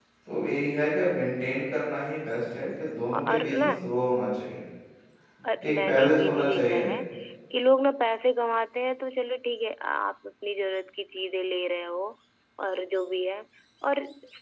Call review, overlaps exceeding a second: present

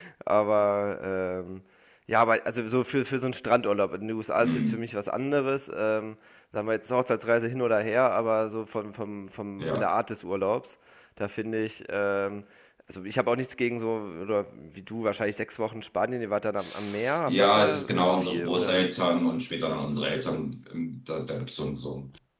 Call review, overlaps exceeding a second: present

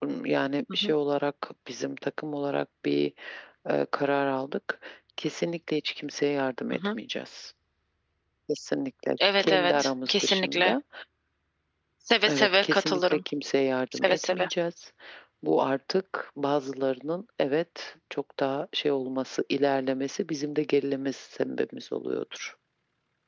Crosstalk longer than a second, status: present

